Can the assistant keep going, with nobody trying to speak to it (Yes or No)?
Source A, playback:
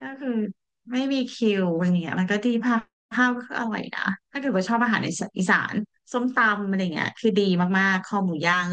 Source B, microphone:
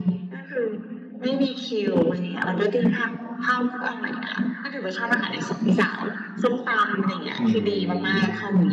No